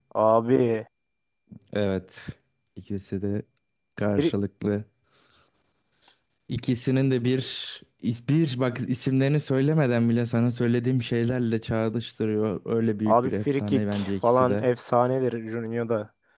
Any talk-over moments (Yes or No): Yes